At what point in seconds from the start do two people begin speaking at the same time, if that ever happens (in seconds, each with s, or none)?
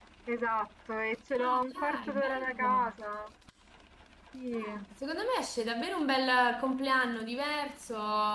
1.4 s